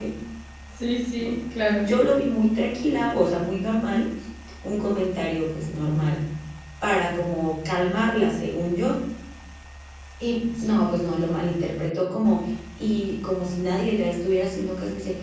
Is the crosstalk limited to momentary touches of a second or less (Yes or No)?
Yes